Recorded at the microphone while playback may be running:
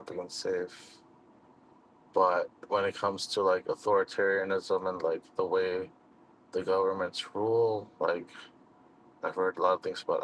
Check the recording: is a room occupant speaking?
Yes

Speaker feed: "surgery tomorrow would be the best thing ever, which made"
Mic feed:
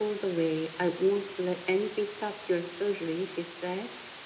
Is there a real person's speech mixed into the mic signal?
Yes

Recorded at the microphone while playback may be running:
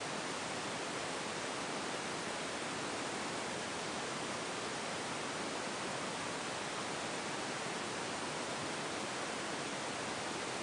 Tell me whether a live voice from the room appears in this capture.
No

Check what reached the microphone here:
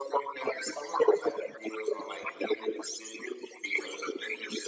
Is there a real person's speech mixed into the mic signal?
No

